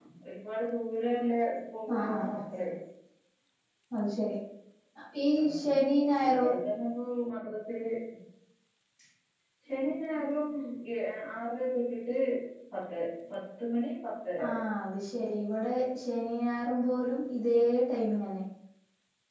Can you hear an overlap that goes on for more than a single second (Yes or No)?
No